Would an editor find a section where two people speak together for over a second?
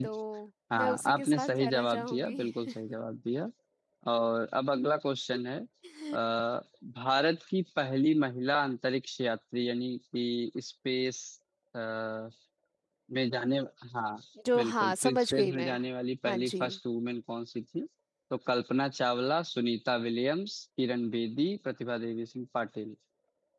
Yes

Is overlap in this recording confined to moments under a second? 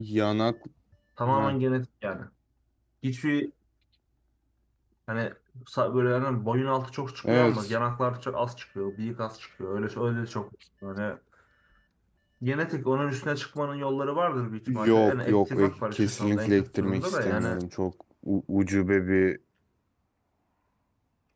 No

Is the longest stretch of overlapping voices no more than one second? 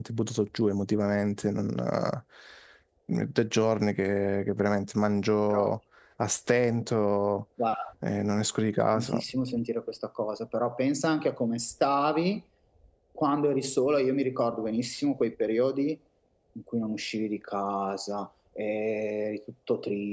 Yes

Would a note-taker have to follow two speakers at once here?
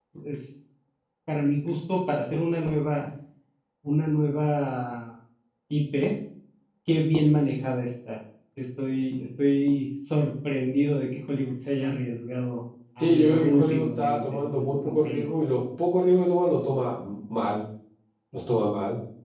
Yes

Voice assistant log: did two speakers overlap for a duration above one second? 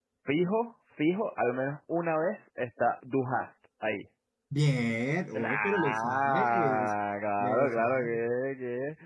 Yes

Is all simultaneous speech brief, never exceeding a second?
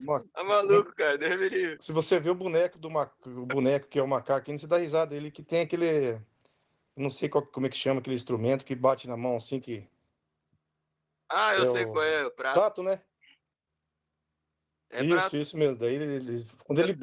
Yes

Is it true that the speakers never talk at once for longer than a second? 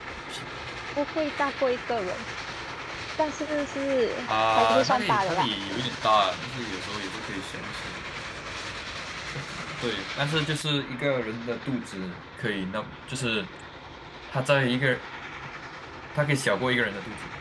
No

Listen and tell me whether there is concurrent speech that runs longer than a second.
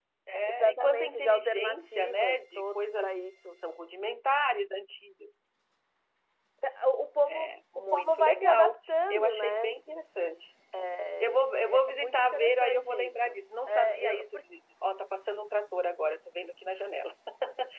Yes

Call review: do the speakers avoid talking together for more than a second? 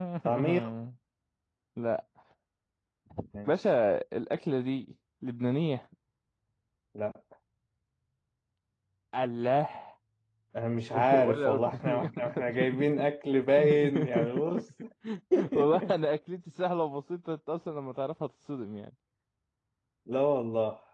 No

